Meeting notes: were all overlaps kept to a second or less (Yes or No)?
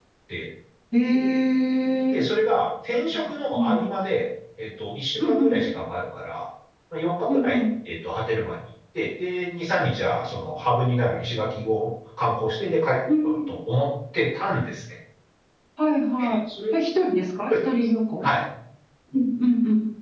Yes